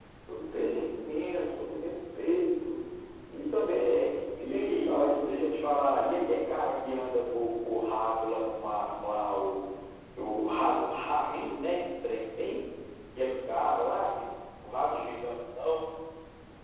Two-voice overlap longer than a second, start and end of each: 3.7-5.5

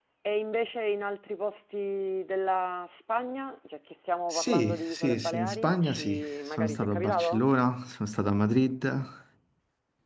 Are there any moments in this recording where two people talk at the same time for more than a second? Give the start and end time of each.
4.3-7.4

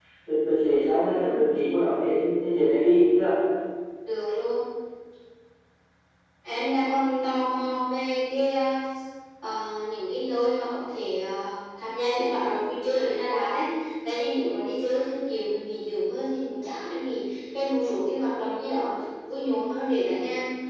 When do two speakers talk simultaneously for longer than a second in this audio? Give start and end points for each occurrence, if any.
none

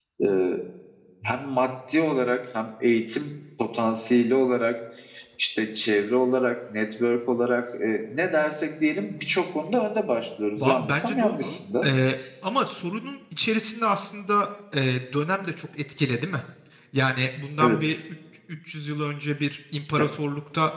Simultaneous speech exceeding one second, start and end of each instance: 10.6-11.9

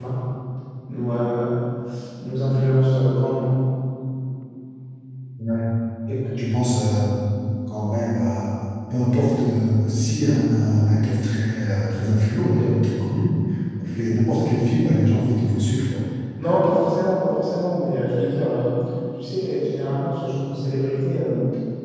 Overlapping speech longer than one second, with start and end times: none

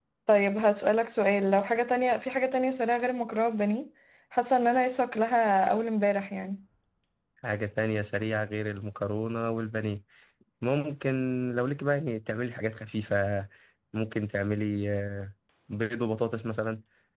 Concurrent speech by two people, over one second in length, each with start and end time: none

